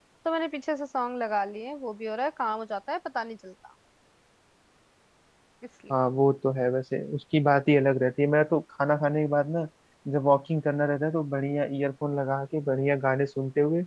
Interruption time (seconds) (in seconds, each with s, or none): none